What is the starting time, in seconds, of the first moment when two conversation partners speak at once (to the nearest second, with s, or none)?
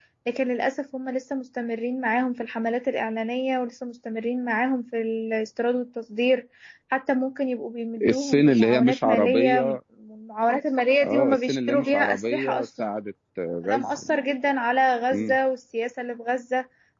8 s